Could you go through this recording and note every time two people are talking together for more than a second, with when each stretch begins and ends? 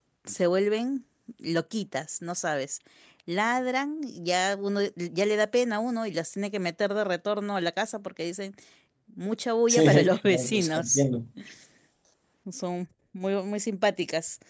9.7-11.0

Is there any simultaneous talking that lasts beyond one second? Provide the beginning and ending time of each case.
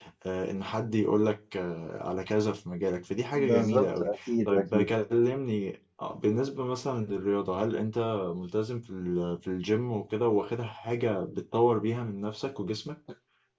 3.4-4.9

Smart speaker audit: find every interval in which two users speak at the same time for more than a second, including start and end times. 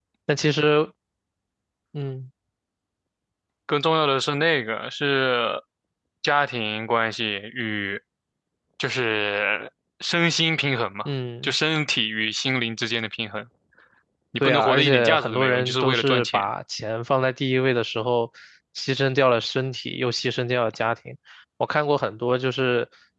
14.4-16.4

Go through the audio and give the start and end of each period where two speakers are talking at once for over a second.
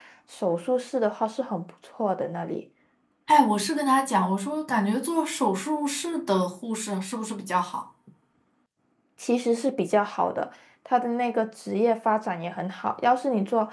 none

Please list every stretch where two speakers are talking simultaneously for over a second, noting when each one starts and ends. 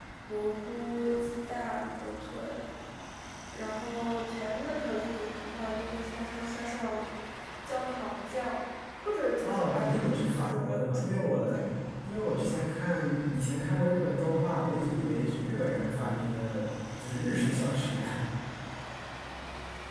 9.4-11.4

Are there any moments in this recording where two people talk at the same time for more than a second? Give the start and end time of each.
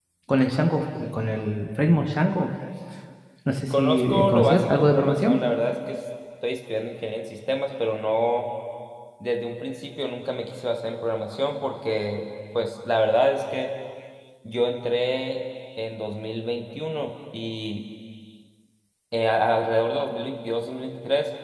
3.7-5.4

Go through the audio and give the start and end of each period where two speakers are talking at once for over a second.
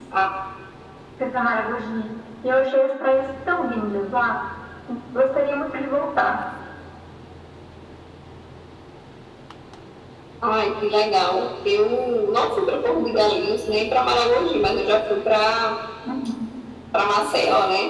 none

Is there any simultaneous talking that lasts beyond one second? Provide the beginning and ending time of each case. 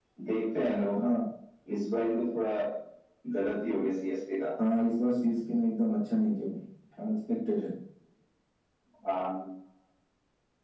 none

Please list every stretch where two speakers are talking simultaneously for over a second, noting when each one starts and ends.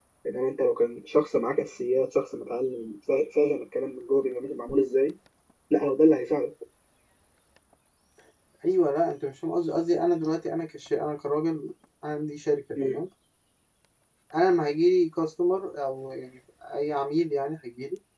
none

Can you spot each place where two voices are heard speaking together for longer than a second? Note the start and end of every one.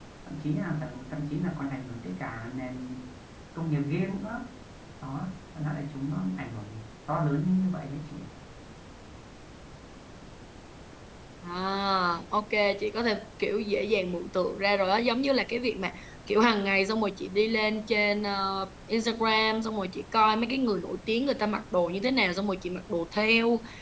none

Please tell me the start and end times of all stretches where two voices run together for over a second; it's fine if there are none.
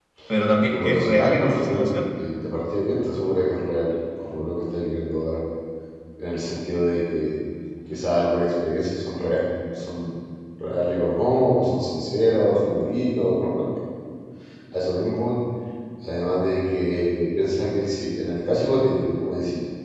0.6-2.0

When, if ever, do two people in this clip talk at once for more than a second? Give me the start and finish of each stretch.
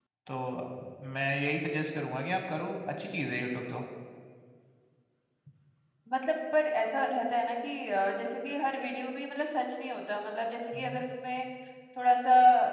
none

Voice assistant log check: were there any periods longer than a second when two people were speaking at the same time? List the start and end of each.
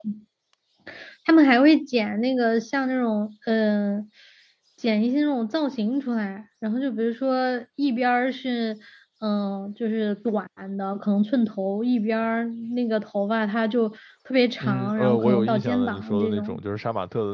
14.6-16.6

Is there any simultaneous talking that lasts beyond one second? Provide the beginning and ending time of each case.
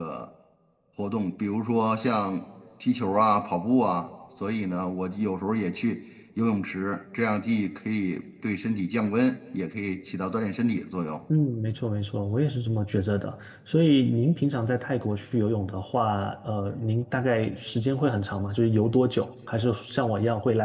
none

